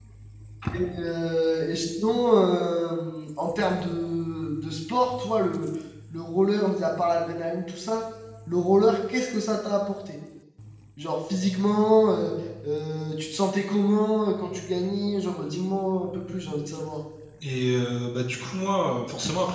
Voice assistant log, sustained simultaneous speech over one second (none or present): none